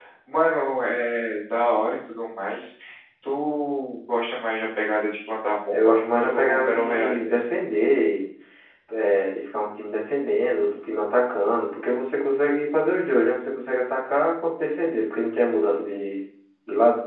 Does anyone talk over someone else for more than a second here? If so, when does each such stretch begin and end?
5.7-7.4

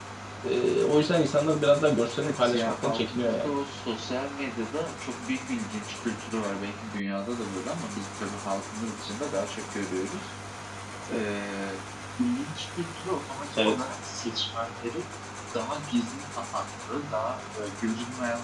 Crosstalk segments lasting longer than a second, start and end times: 2.2-3.5

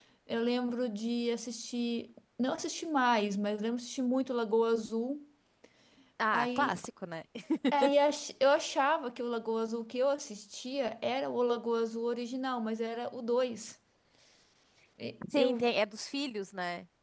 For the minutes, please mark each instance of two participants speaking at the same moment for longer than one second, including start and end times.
none

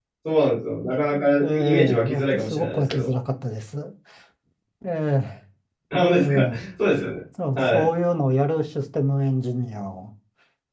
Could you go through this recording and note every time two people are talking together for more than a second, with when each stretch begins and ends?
1.4-3.1

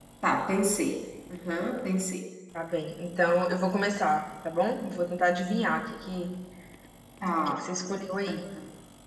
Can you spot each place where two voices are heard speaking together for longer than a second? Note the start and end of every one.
none

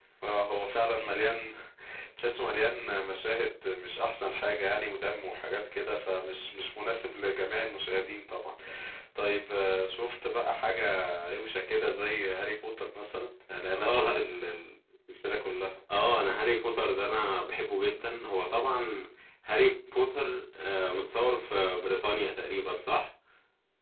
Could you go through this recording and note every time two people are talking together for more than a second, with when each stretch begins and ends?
none

